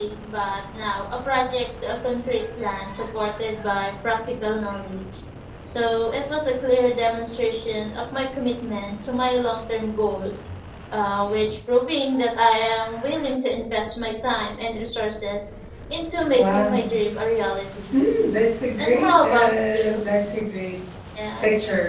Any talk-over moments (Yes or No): Yes